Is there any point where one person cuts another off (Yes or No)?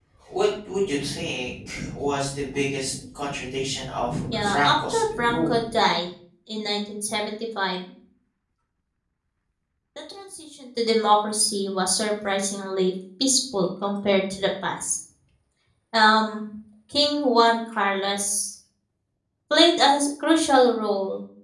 Yes